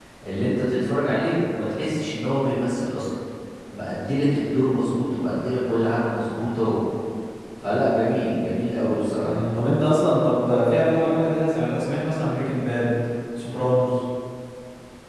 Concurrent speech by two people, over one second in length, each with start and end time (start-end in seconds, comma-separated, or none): none